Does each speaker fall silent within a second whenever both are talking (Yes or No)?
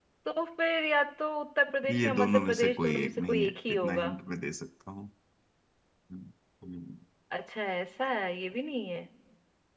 No